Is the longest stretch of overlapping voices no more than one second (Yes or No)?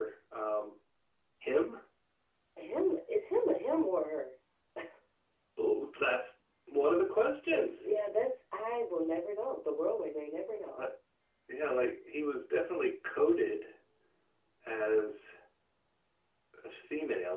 Yes